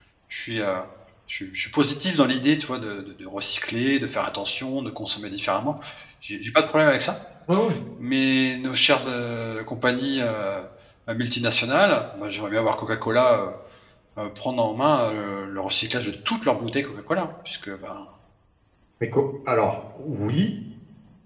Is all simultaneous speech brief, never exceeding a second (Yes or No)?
Yes